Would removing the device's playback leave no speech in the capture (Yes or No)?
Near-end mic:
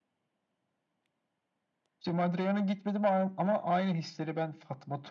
Yes